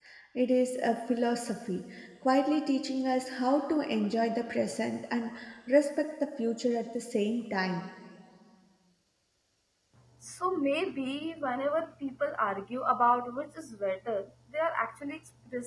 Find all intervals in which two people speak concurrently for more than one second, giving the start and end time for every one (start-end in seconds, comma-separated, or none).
none